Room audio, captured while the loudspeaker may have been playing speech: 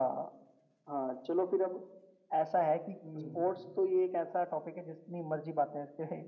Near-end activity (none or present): present